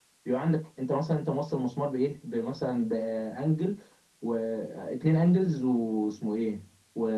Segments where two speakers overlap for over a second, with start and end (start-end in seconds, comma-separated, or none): none